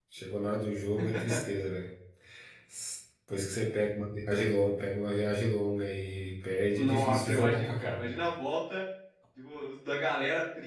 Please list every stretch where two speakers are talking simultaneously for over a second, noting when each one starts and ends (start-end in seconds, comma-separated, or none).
6.8-8.1